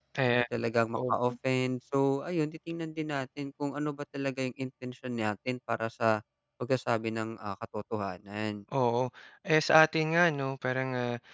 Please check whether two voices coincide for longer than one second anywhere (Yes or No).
No